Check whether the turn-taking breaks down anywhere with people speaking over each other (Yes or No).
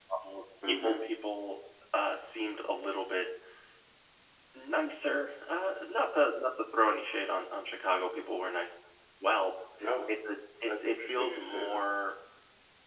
Yes